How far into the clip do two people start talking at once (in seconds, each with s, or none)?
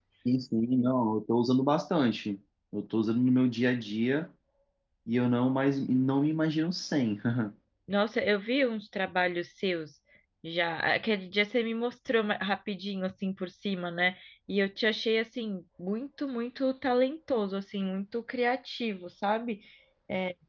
none